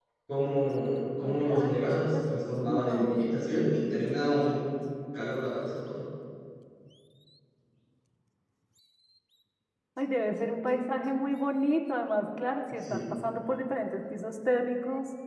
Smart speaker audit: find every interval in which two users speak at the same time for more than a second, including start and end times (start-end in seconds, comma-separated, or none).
1.2-3.3